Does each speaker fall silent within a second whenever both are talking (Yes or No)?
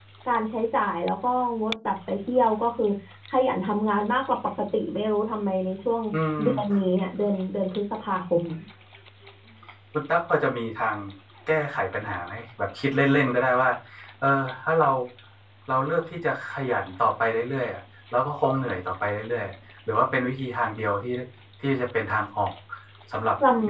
Yes